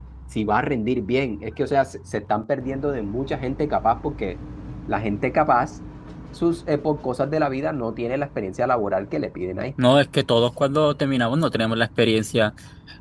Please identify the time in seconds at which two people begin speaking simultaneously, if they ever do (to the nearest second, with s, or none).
none